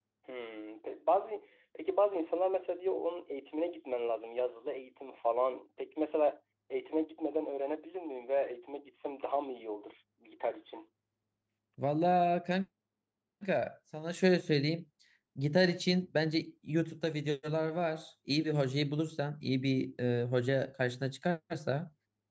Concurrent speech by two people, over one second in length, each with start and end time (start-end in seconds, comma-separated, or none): none